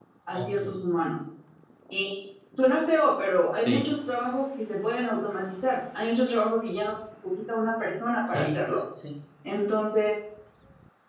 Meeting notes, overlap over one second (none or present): none